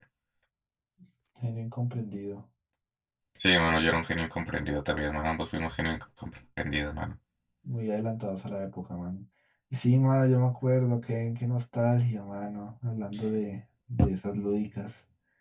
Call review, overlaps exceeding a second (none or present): none